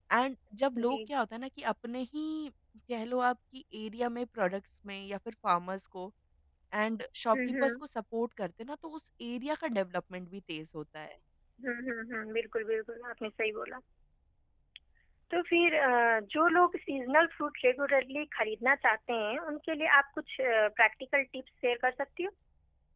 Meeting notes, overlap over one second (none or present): none